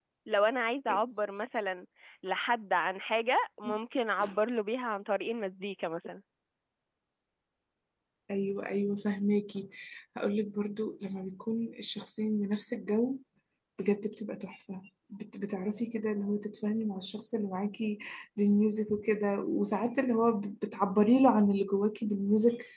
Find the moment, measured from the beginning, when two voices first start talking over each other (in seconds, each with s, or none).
none